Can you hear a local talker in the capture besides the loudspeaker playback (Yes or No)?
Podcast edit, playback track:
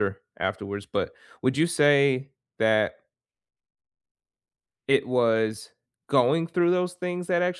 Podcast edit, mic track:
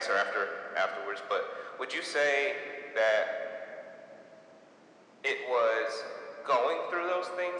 No